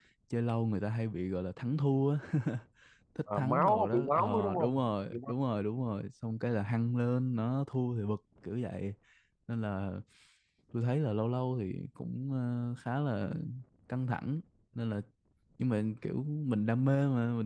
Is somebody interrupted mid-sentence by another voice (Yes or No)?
Yes